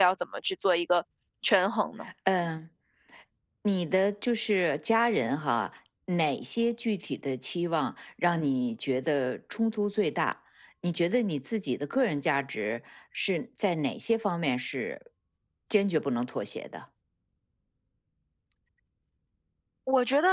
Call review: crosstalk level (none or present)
none